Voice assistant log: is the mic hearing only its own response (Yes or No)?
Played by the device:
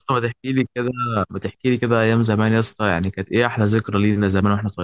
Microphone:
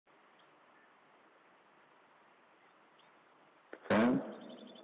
No